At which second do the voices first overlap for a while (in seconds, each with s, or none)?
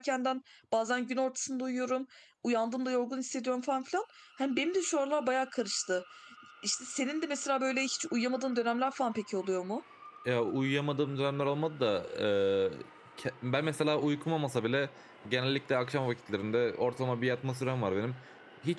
none